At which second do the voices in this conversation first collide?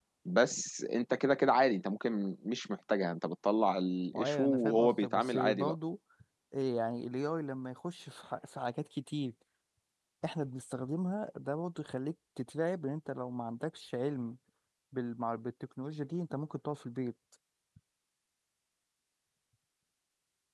4.1 s

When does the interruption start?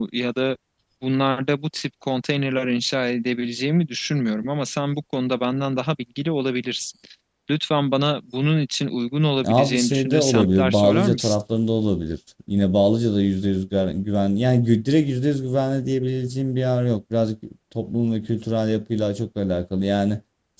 9.4 s

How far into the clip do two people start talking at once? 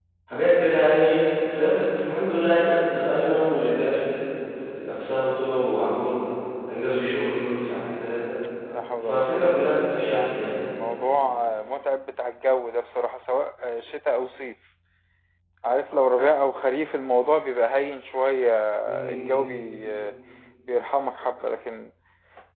9.0 s

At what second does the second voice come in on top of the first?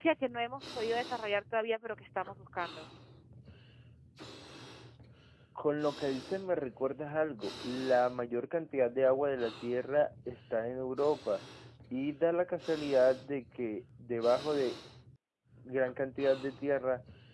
none

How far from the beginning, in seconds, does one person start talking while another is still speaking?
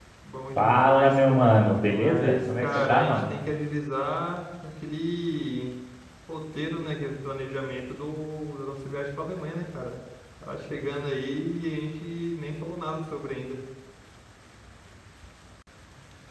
0.6 s

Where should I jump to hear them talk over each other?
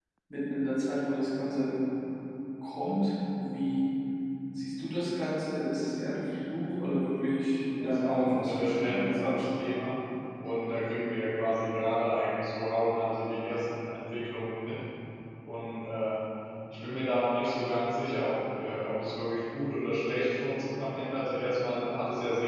7.8 s

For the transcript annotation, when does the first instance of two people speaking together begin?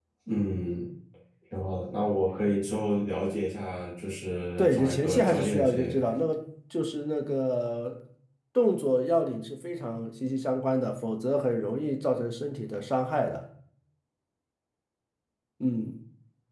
4.6 s

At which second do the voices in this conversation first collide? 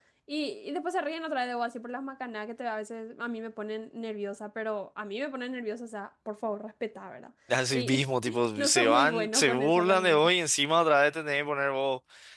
7.7 s

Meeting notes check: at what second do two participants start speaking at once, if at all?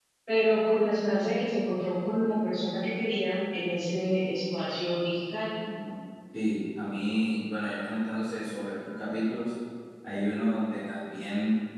none

